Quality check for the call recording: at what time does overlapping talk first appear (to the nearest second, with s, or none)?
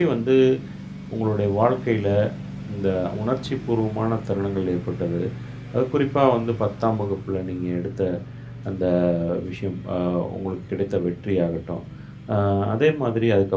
none